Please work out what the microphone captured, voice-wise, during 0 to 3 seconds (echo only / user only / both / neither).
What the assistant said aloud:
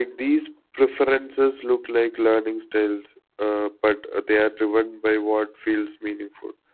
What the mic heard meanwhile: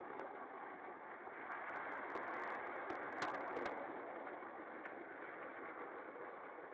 neither